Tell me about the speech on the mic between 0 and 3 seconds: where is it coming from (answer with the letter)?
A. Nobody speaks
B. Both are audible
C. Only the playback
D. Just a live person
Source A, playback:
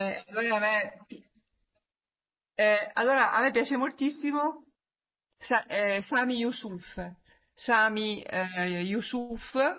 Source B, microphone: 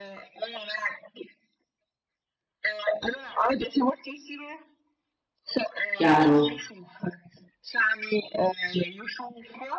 C